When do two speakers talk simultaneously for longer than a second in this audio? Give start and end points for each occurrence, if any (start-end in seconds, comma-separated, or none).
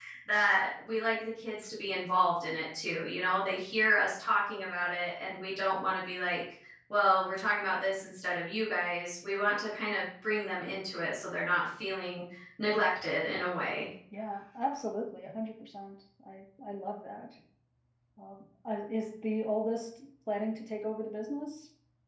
none